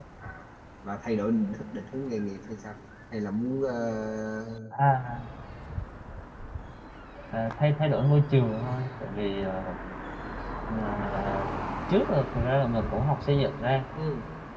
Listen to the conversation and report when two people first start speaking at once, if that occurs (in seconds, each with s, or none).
none